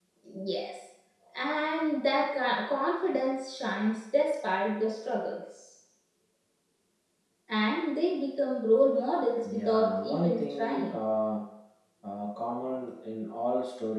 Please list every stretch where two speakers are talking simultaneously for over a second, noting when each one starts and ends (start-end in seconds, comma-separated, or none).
9.5-11.0